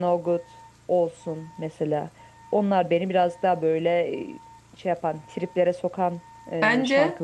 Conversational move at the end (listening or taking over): taking over